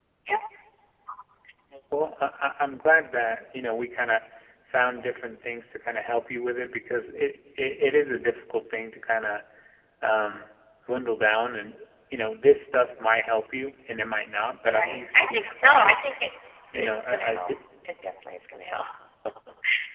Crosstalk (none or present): present